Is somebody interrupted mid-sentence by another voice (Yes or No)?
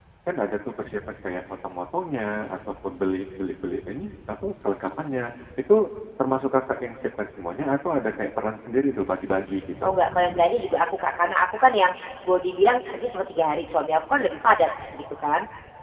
No